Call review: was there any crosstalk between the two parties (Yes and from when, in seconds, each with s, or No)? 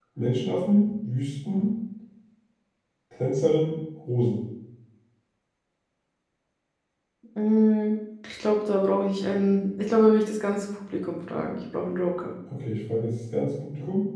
No